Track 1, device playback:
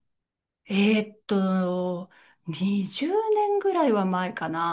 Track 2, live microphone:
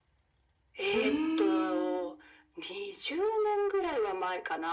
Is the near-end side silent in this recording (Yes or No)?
No